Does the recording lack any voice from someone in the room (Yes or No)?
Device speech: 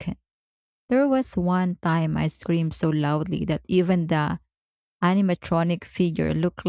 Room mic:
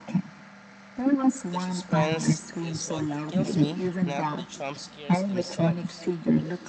No